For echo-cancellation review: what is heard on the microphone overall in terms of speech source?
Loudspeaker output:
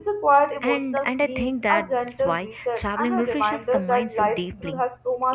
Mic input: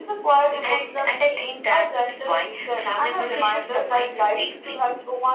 echo only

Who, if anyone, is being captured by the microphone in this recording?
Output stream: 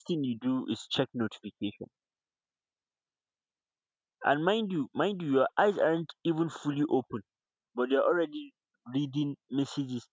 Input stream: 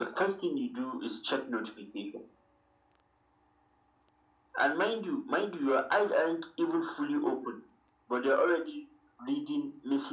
echo only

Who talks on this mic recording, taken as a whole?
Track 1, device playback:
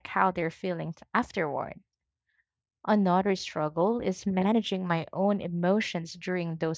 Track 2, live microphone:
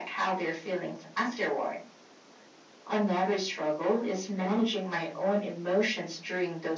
echo only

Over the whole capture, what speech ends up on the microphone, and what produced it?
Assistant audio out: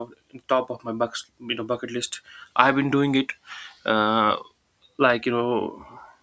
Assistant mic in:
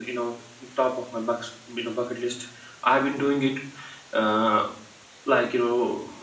echo only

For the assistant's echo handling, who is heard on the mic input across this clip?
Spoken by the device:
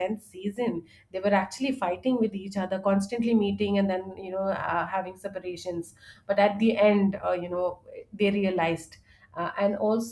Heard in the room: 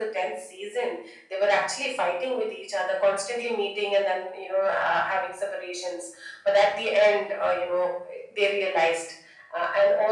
echo only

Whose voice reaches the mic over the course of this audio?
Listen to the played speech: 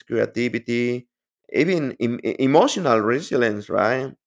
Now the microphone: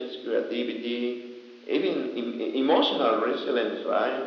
echo only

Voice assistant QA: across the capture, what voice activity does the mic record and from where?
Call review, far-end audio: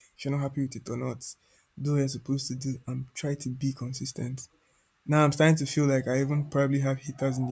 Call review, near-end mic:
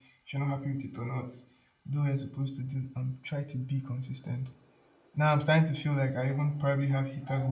echo only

